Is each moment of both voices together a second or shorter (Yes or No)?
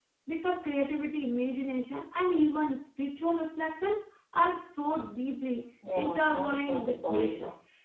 No